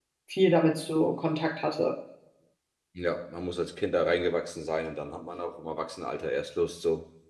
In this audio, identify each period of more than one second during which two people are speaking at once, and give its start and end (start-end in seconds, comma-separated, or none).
none